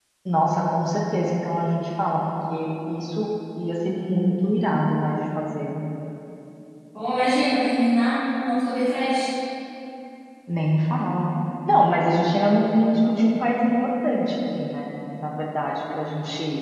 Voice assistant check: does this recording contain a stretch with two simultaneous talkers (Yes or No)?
No